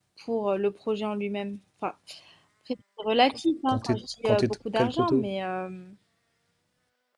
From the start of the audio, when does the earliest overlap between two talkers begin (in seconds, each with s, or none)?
3.7 s